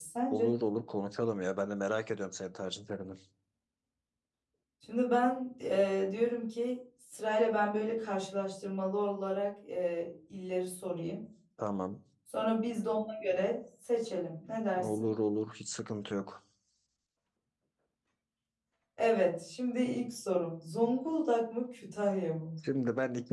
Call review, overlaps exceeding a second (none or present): none